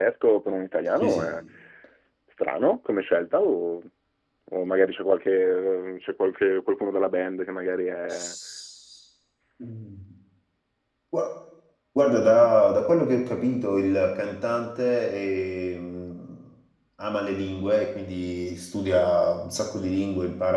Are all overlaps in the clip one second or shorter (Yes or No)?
Yes